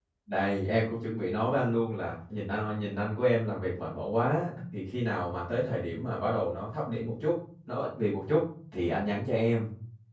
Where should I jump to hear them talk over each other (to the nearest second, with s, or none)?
none